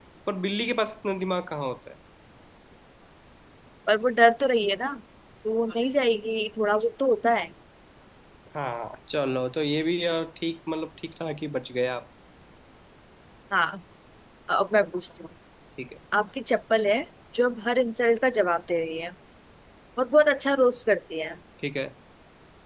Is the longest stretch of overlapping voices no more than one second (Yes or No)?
Yes